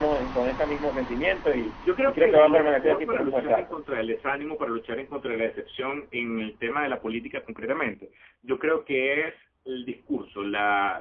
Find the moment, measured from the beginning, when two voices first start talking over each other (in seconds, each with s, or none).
1.8 s